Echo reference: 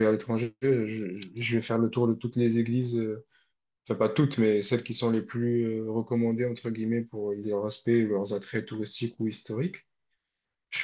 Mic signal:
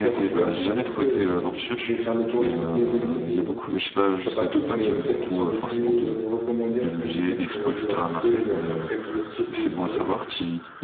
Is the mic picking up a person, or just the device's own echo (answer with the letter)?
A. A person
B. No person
A